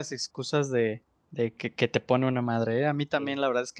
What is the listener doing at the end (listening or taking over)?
listening